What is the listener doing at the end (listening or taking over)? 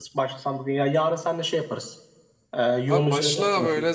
taking over